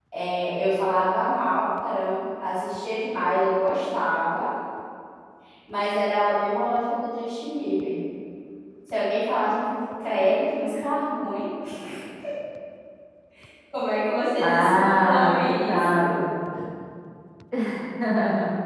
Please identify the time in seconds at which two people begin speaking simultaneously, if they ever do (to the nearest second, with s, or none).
14 s